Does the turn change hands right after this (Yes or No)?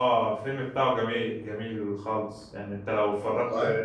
No